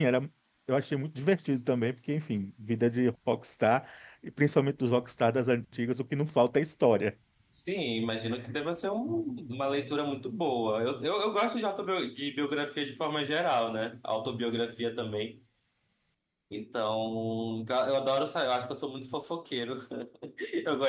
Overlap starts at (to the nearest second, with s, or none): none